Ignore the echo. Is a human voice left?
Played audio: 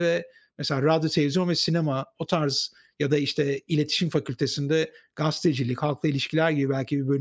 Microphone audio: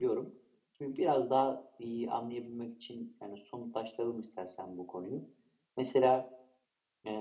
Yes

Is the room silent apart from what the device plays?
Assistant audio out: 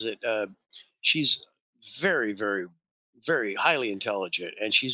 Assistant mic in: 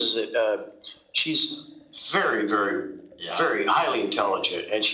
No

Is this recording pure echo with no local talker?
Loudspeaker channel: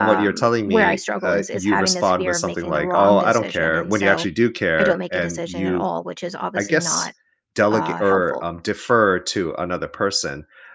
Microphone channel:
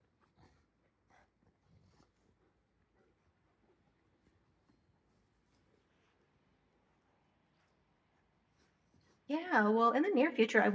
No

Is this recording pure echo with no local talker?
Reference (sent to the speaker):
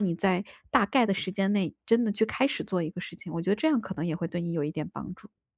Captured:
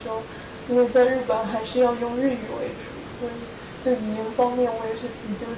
No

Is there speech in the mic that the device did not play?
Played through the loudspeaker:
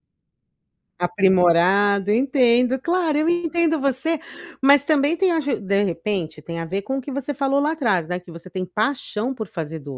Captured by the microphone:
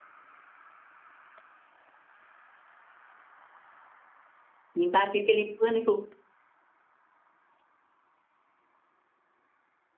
Yes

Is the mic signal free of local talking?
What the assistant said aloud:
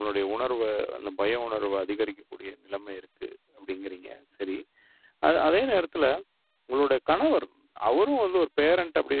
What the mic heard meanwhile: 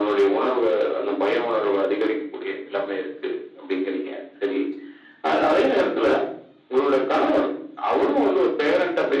Yes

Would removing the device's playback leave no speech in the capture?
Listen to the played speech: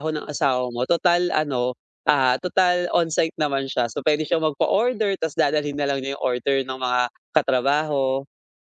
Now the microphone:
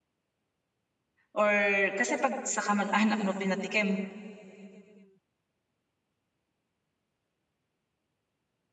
No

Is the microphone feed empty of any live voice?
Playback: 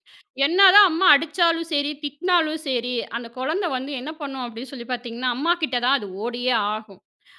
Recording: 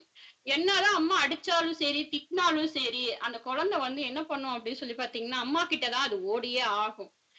Yes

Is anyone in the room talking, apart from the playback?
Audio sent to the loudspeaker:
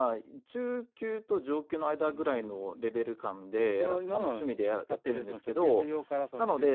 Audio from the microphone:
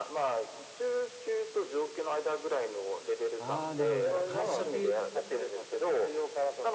Yes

